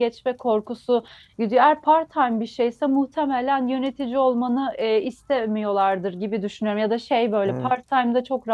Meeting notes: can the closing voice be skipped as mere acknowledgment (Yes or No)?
Yes